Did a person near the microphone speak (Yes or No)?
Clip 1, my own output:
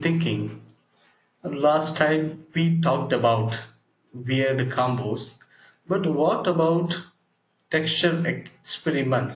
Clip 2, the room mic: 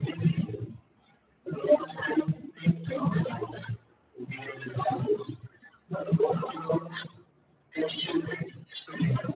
No